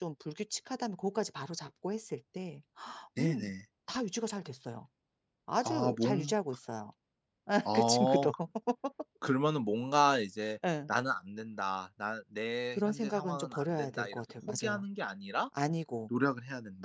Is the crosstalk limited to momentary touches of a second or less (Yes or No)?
No